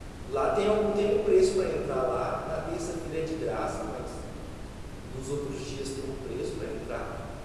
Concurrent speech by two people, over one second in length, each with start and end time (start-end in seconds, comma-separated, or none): none